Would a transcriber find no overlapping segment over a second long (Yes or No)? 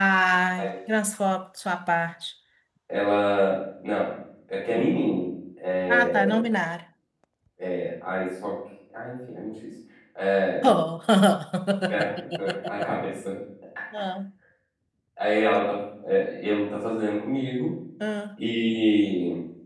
Yes